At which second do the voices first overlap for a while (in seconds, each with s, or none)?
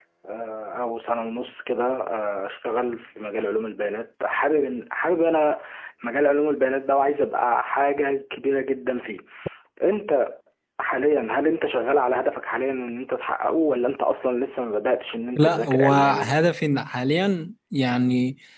15.4 s